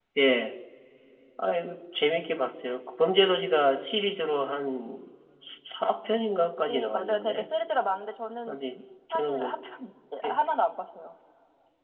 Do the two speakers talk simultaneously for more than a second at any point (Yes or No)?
Yes